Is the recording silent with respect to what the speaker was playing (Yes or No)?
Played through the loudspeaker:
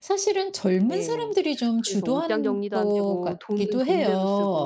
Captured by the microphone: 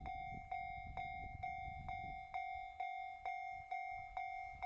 Yes